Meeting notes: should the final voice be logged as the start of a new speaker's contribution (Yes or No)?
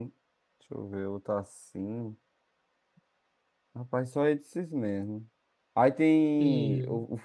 No